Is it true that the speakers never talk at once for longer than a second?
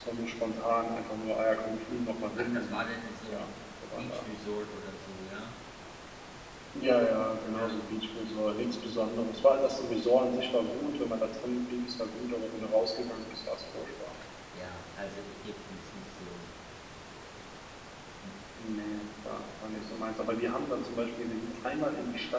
Yes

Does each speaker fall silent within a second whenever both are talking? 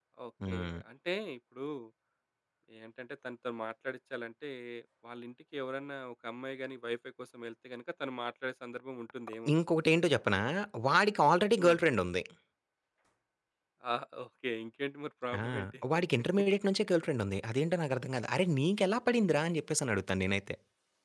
Yes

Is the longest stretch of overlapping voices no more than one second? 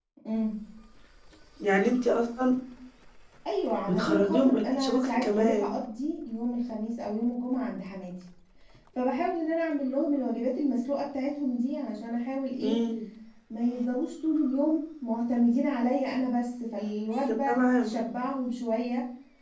No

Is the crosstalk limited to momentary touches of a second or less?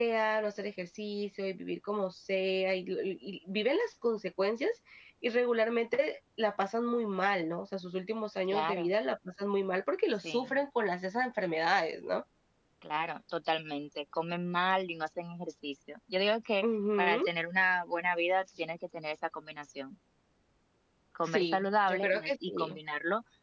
No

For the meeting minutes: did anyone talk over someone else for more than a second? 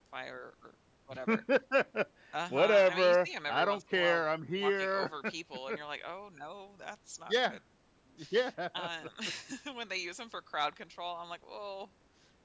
Yes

